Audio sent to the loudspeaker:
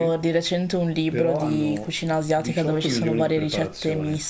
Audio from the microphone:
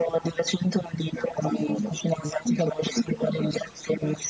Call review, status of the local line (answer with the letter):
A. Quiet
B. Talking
A